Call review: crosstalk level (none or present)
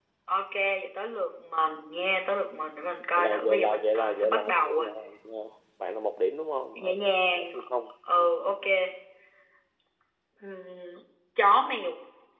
present